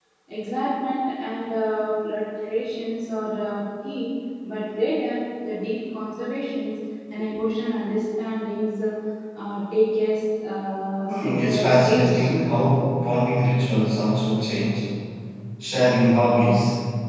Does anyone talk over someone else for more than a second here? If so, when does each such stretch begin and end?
11.1-12.3

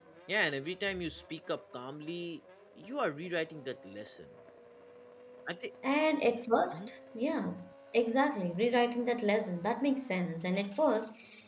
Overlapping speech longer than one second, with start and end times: none

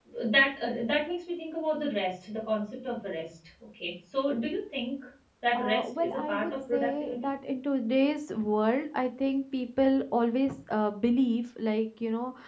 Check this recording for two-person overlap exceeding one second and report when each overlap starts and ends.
5.5-7.3

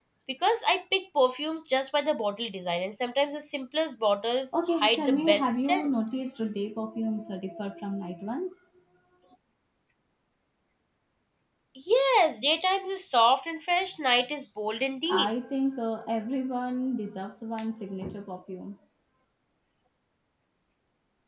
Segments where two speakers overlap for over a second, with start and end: 4.5-5.9

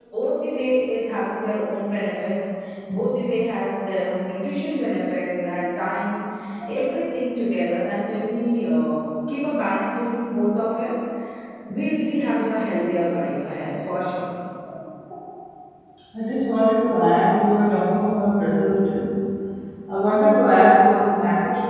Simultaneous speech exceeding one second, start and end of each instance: none

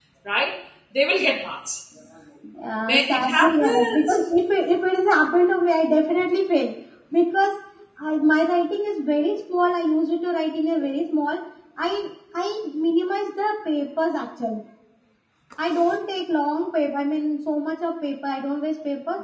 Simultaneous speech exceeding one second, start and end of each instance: 2.9-4.2

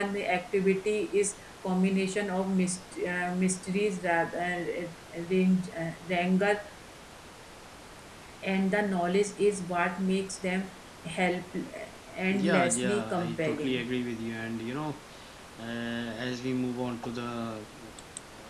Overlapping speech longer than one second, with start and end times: 12.3-13.8

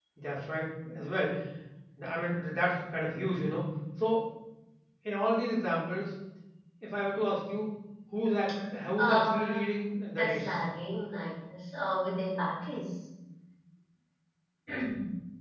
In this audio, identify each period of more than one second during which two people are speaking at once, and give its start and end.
9.0-10.6

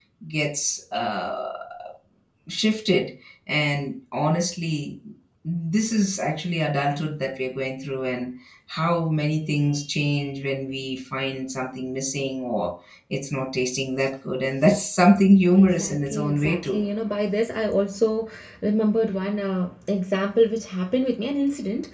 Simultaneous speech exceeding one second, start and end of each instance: 15.5-16.8

